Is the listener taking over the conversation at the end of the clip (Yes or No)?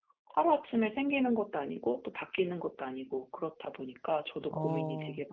Yes